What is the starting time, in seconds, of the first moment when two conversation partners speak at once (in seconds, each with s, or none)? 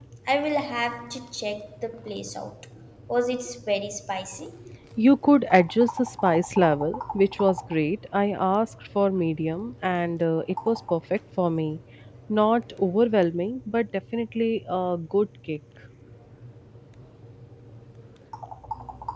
none